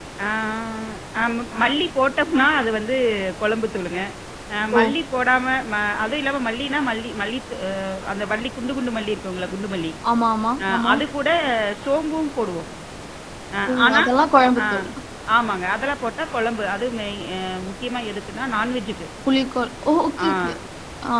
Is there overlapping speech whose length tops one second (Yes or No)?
No